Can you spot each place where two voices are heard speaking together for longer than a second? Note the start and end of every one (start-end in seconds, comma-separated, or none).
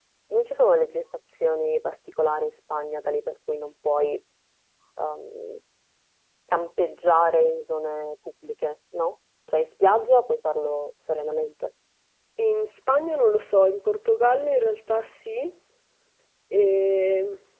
none